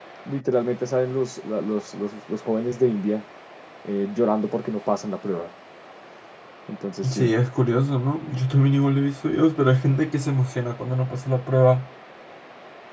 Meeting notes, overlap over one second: none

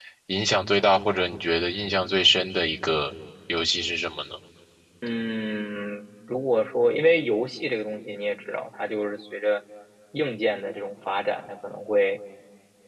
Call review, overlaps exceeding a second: none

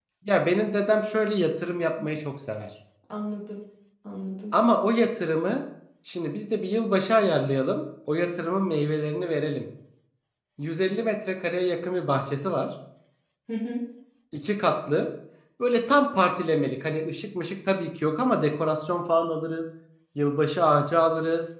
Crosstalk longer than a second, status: none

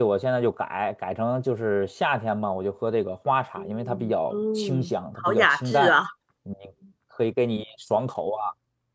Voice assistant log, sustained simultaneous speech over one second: present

